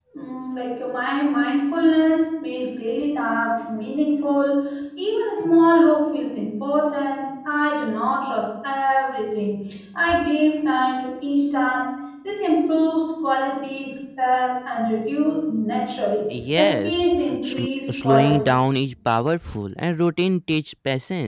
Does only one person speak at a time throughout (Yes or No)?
No